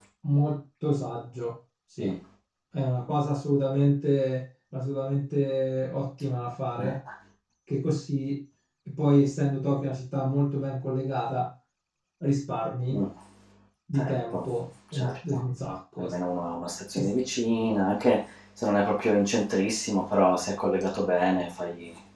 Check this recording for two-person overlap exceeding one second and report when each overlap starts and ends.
none

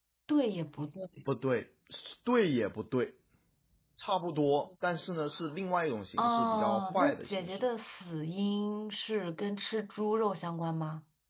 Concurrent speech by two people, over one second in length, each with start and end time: 6.2-7.7

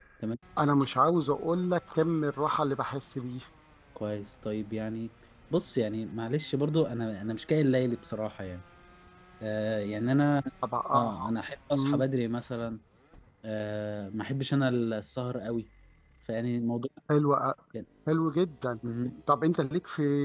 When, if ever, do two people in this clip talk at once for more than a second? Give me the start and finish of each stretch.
none

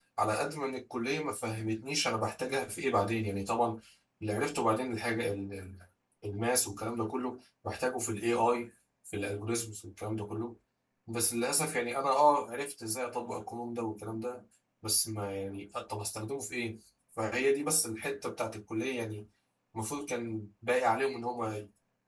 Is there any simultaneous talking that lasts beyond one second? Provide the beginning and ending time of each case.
none

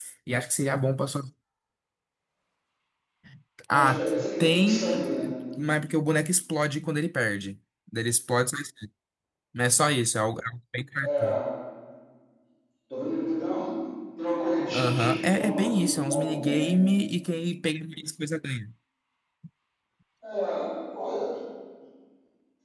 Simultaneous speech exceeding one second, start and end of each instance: 3.7-5.1, 14.7-16.8

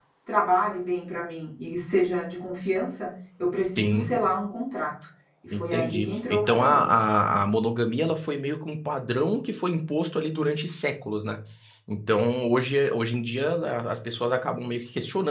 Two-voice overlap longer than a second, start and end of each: 5.5-6.8

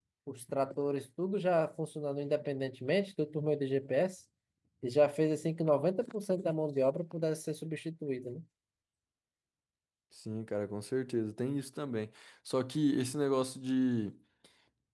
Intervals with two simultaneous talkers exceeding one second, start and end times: none

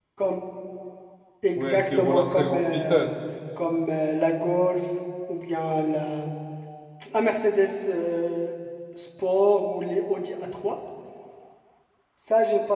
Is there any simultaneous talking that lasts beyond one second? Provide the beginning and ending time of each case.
1.6-3.1

